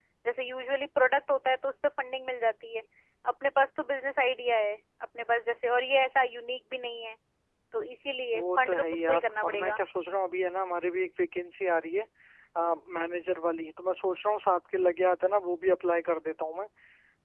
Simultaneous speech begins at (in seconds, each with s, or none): 8.3 s